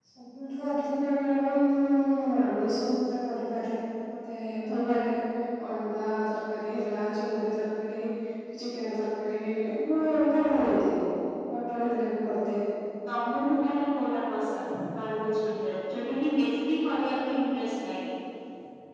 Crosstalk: none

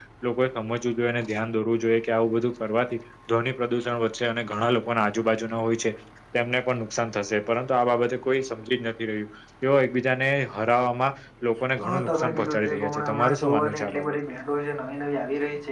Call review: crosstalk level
present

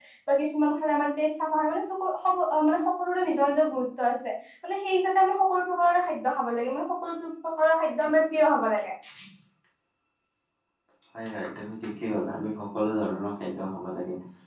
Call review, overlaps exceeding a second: none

